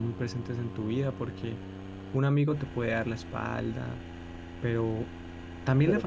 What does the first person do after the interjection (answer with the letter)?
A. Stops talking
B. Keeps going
B